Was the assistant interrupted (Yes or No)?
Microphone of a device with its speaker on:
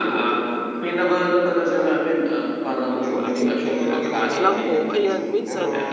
Yes